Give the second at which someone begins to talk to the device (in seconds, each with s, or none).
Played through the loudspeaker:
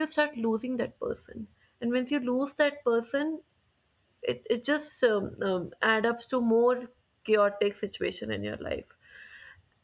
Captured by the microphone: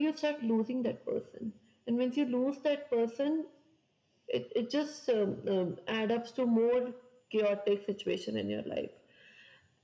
none